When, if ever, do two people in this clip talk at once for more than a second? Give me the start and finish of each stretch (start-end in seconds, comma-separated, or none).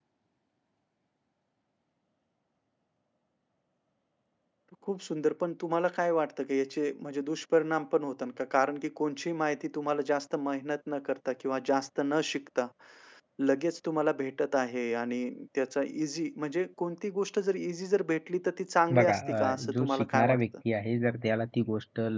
18.9-20.4